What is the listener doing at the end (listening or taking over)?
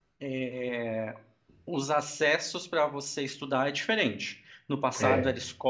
listening